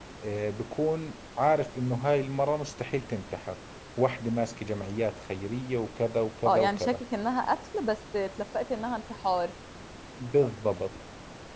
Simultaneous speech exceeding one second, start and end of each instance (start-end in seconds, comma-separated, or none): none